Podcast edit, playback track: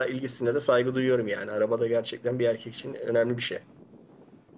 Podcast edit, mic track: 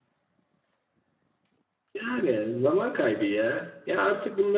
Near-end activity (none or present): present